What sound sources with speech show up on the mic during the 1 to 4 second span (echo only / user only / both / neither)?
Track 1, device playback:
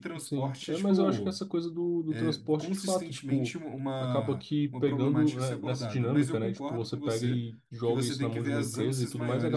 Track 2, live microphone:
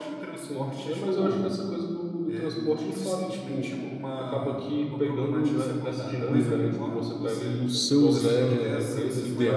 echo only